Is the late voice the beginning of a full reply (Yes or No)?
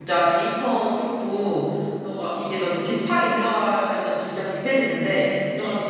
No